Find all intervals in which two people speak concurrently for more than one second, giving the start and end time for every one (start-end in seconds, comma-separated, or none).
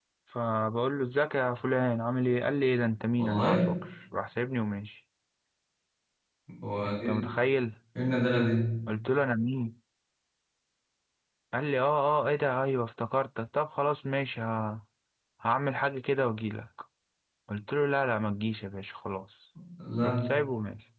none